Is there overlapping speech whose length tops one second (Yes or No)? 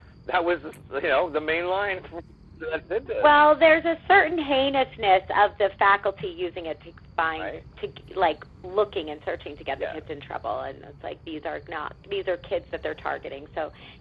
No